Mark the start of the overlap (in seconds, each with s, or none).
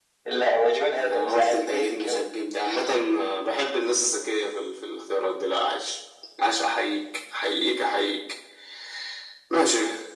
1.0 s